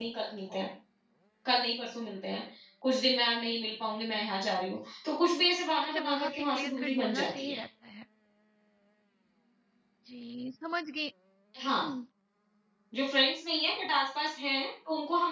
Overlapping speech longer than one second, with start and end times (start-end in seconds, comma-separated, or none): 5.8-7.6